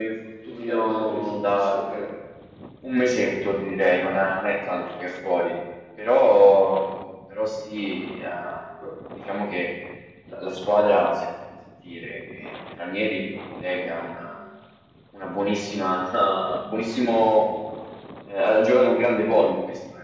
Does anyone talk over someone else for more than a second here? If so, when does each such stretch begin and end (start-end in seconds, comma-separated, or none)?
0.5-1.8